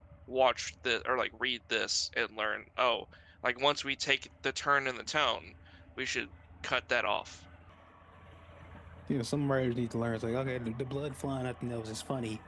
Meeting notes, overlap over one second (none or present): none